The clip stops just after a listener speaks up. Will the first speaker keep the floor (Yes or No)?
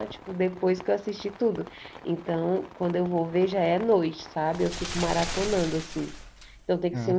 Yes